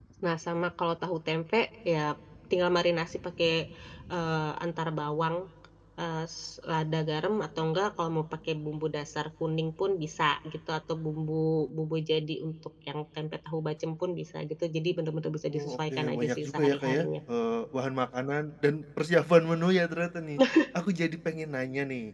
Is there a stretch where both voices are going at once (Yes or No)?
Yes